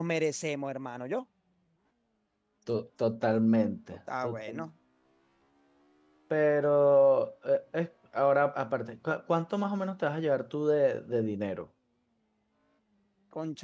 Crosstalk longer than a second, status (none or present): none